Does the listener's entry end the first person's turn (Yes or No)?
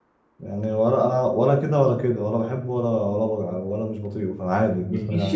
Yes